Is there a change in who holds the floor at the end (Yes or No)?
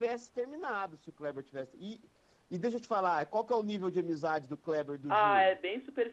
Yes